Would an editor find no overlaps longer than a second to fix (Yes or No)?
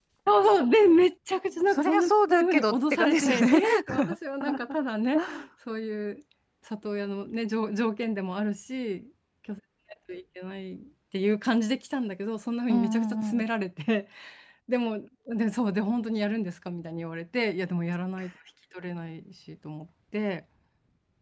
No